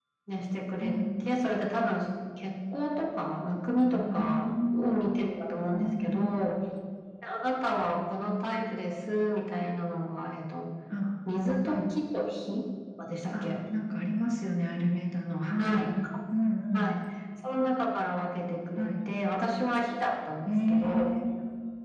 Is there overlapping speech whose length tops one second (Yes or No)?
Yes